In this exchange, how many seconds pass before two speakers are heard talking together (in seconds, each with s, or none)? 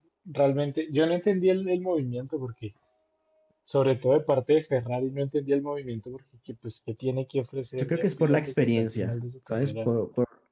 7.8 s